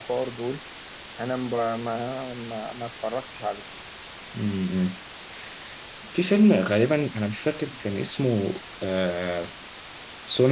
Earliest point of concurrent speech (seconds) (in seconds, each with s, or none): none